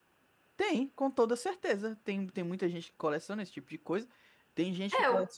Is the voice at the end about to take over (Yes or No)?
No